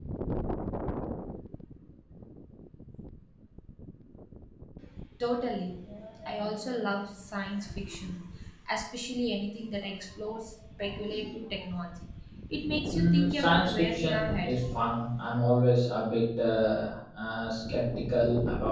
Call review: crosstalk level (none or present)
present